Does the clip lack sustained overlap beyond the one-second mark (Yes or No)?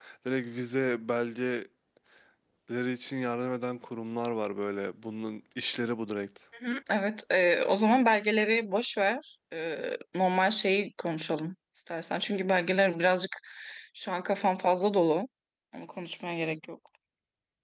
Yes